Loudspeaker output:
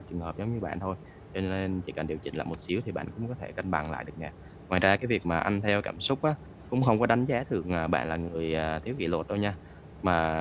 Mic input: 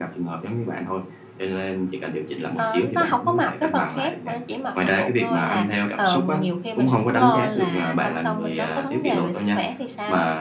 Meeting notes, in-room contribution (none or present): present